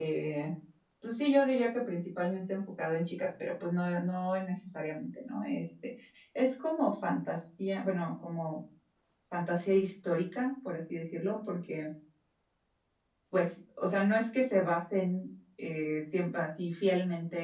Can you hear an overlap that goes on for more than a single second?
No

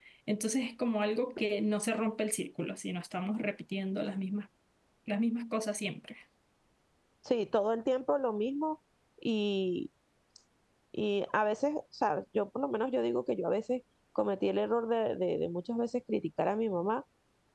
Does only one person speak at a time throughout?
Yes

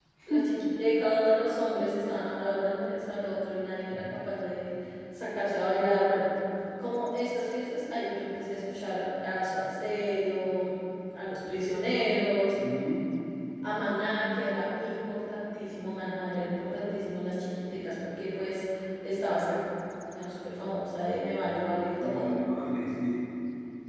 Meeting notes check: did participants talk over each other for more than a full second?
No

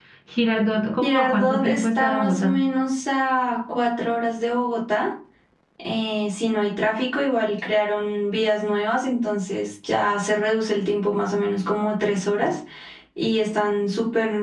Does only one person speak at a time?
No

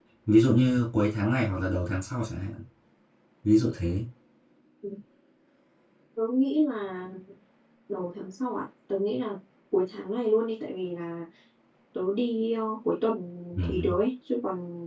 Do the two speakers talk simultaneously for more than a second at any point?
No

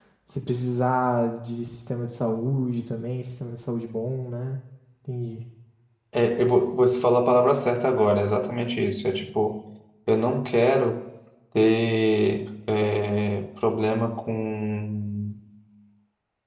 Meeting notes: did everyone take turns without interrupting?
Yes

